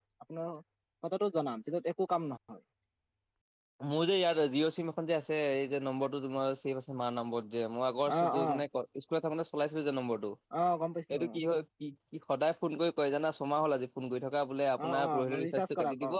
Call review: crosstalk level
present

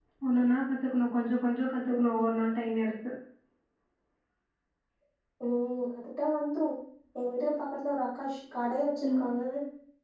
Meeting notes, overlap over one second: none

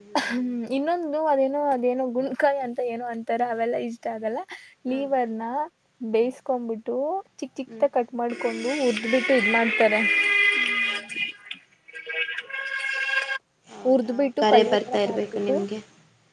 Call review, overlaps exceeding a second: present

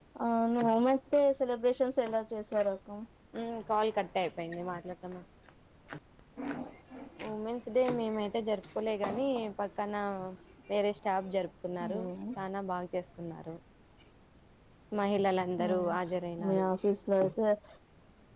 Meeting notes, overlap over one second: none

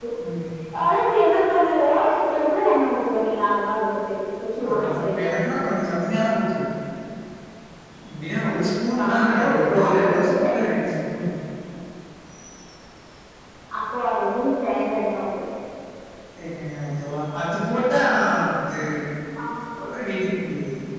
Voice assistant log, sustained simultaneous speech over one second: present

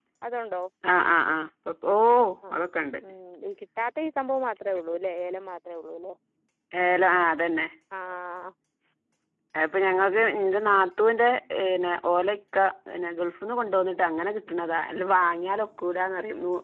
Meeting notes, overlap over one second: none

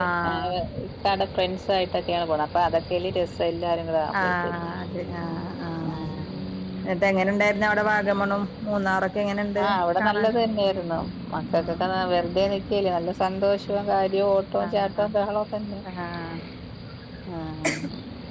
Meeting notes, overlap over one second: none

